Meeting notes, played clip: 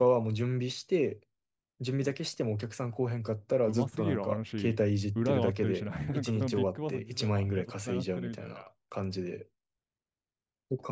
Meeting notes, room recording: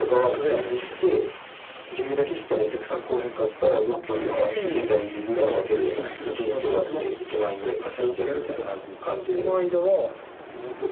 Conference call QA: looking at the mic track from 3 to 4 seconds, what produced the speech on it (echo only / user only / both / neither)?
echo only